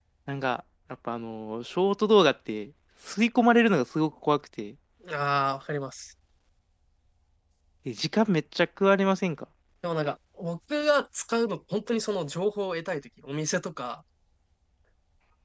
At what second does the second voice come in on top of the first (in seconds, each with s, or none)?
none